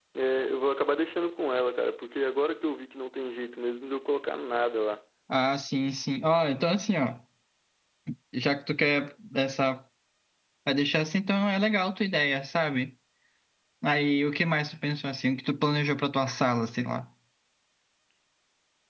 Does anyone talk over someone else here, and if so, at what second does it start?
none

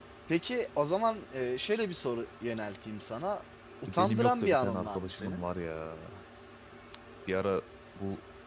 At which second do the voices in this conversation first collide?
3.9 s

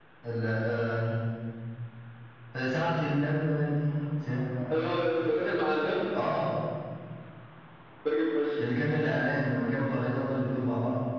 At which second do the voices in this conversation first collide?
none

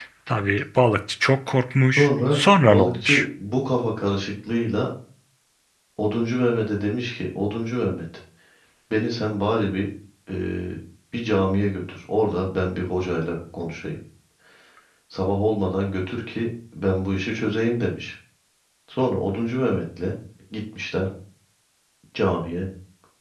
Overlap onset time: 2.0 s

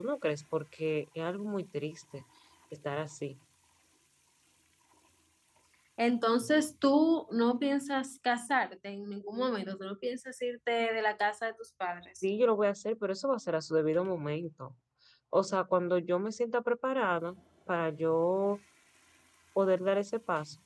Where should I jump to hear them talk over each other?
none

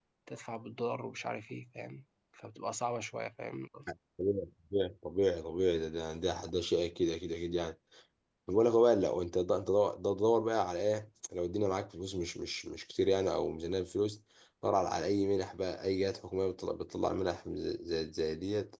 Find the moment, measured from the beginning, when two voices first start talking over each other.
none

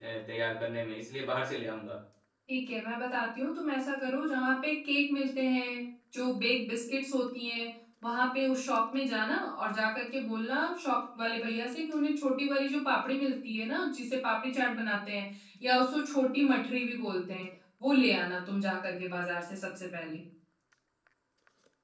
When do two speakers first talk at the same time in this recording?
none

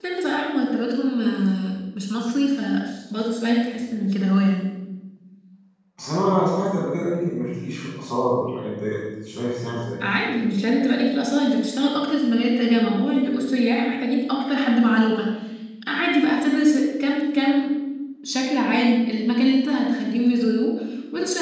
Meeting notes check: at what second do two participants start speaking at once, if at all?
none

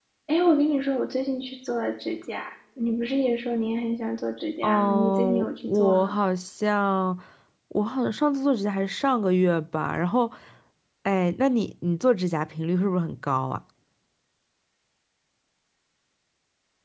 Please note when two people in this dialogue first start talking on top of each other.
4.6 s

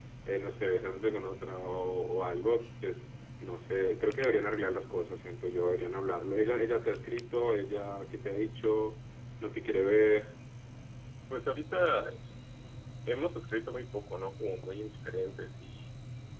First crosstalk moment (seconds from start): none

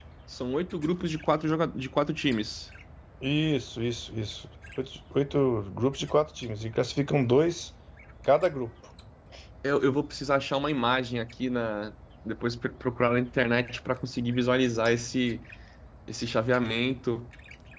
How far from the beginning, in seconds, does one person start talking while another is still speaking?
none

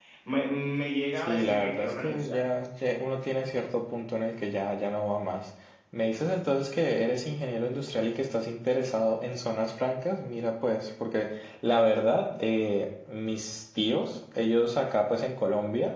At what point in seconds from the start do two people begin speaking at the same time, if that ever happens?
1.2 s

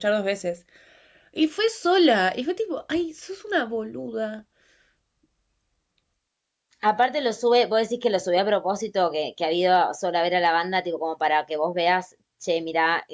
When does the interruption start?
none

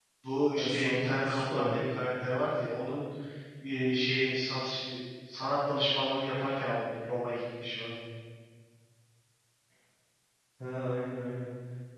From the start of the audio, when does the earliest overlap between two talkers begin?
0.6 s

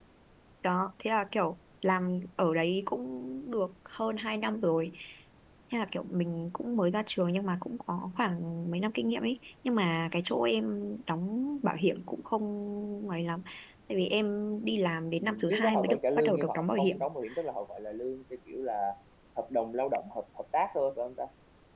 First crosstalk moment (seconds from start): 15.2 s

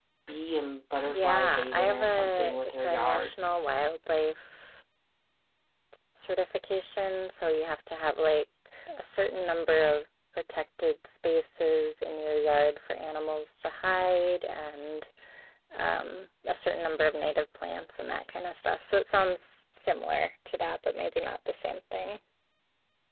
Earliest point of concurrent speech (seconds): 1.1 s

